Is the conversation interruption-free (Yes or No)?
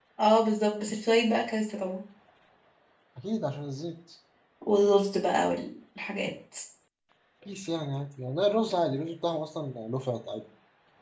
Yes